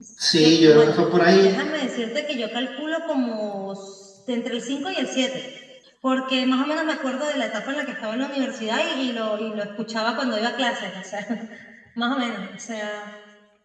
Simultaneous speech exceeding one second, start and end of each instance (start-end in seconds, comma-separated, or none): none